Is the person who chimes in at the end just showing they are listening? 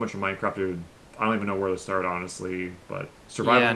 No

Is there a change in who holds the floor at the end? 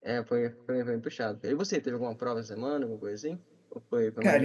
Yes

